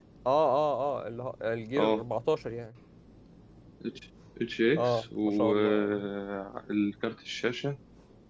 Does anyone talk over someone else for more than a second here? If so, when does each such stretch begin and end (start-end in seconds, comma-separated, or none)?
4.8-6.1